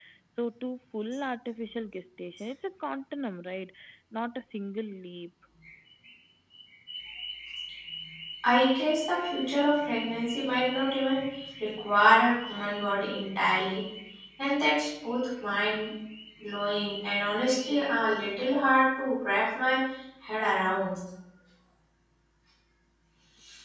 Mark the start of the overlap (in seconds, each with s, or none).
none